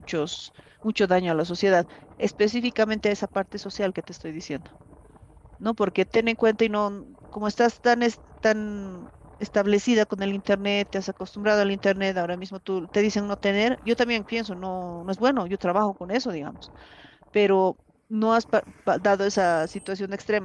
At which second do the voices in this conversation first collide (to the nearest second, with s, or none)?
none